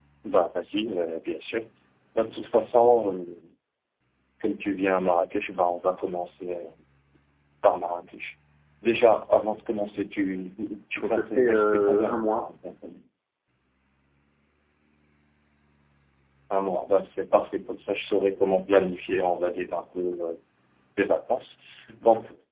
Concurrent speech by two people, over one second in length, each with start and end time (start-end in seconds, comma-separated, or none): 10.9-12.5